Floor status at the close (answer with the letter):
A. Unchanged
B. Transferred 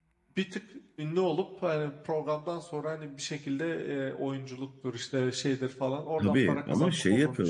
B